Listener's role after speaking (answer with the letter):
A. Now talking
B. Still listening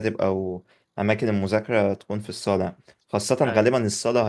B